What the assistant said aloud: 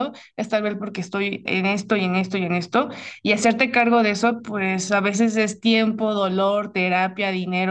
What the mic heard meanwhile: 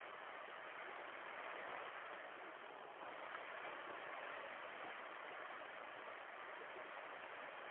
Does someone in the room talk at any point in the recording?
No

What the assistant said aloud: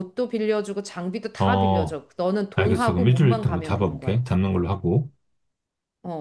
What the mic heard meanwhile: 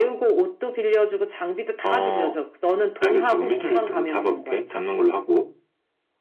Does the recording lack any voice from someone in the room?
Yes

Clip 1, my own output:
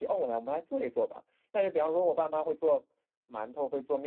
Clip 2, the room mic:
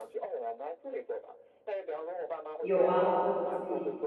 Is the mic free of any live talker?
No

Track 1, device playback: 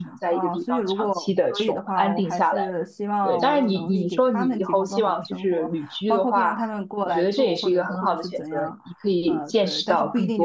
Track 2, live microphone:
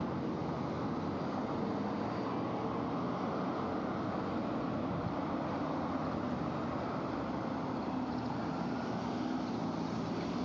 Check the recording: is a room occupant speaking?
No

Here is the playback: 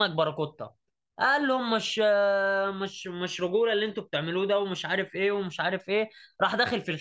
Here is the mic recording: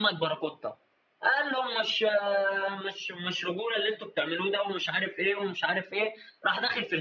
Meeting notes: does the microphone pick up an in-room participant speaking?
No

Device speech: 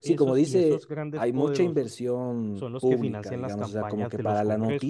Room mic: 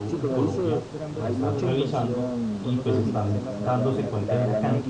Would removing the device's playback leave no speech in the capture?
No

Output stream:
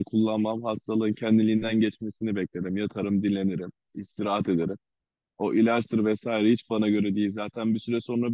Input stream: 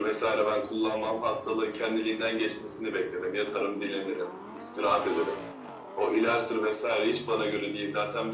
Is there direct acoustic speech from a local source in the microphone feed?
No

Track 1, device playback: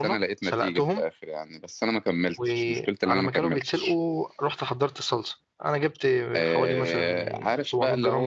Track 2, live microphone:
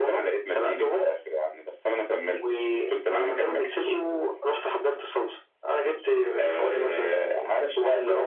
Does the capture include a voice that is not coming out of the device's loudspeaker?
No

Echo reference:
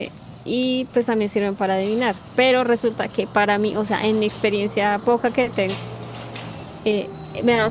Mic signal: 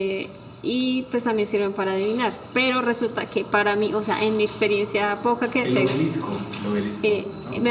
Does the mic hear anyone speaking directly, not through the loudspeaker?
Yes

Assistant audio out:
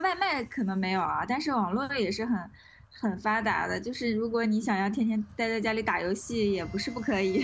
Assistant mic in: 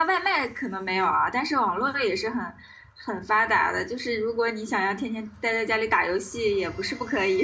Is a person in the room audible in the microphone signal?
No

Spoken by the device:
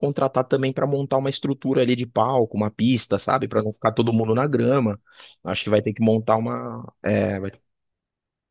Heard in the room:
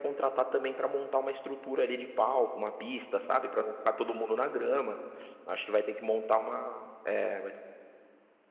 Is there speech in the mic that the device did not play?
No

